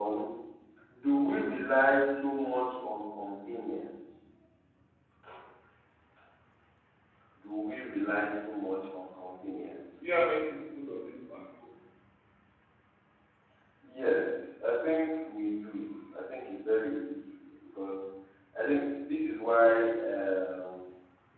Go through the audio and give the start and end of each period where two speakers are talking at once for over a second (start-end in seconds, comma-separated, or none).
none